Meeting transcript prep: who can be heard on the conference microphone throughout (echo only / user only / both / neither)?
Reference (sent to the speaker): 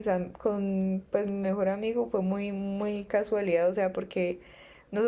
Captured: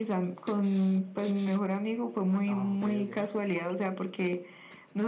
both